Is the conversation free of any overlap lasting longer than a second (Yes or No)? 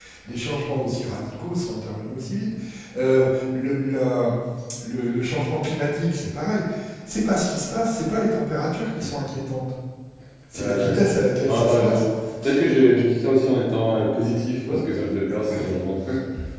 Yes